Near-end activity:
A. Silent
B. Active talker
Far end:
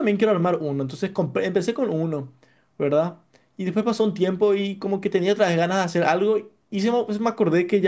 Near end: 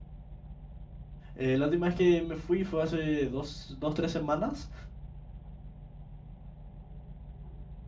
B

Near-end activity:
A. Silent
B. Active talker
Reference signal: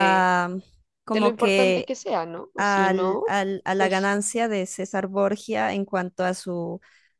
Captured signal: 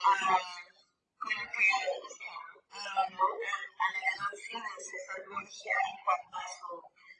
A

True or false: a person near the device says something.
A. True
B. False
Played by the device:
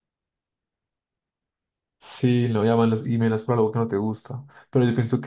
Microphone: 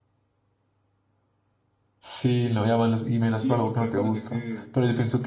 A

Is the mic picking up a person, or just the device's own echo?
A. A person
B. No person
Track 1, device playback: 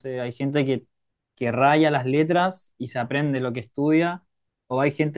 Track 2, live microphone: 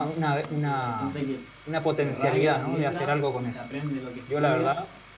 A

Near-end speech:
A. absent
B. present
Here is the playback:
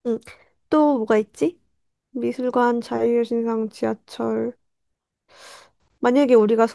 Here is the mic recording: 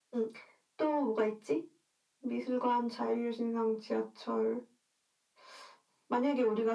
A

